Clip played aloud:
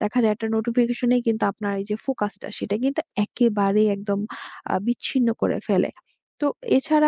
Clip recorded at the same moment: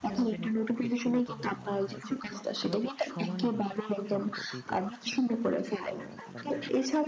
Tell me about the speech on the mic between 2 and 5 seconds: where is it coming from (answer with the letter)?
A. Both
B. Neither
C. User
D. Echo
A